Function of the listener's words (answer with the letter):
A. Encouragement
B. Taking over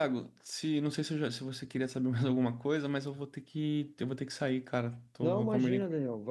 B